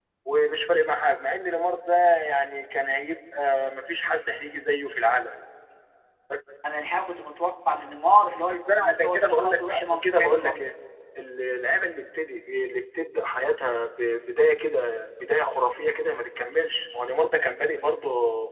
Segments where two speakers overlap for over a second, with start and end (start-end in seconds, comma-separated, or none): 8.7-10.6